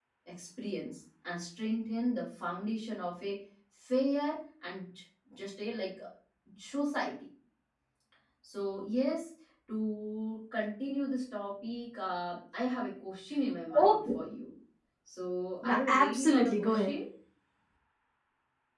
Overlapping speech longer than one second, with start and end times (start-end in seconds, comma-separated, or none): 15.6-16.9